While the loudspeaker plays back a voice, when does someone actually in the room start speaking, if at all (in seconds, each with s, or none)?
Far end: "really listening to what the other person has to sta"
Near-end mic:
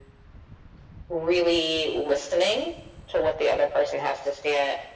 none